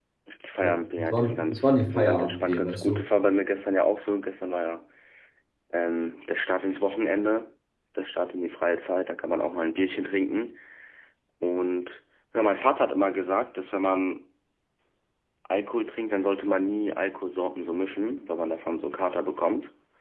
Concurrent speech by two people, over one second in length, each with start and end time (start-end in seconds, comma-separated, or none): 0.6-3.1